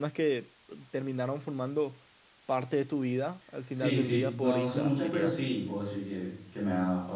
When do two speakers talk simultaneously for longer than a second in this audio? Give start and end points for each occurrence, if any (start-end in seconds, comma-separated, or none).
3.7-5.4